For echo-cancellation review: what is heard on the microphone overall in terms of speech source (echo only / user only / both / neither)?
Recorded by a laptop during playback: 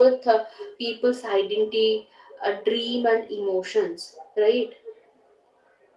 echo only